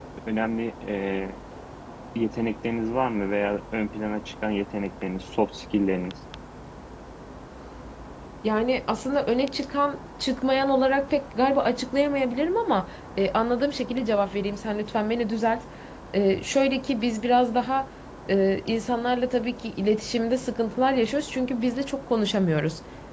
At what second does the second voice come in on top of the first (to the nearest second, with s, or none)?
none